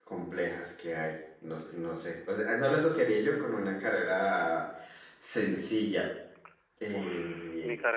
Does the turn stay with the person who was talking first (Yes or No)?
No